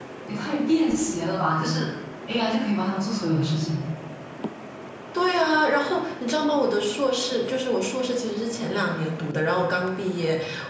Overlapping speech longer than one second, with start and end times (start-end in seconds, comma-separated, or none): none